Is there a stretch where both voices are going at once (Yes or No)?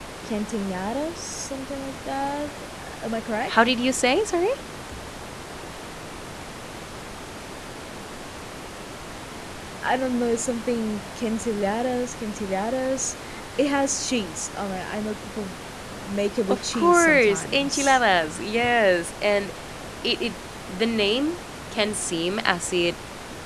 Yes